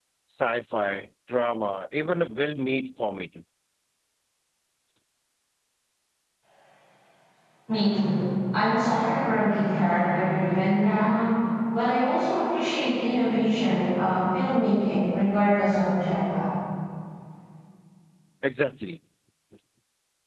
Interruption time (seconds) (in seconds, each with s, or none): none